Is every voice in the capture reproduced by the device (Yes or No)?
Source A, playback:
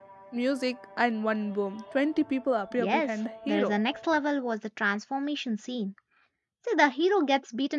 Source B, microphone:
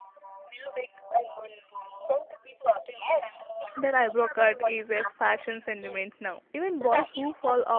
No